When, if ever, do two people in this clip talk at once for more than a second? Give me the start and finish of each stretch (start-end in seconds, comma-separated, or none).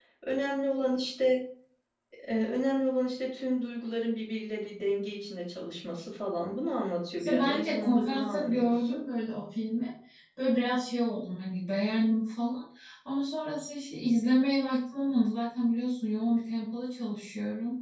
7.2-9.0